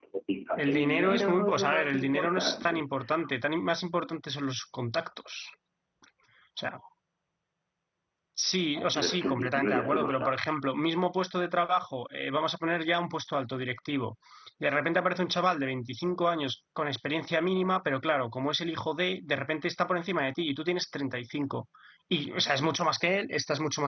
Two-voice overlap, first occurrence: 0.6 s

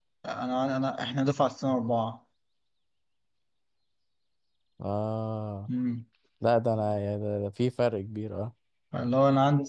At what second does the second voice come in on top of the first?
none

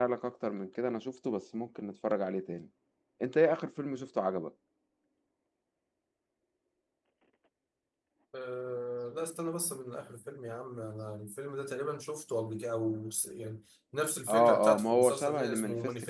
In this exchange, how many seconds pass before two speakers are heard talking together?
14.3 s

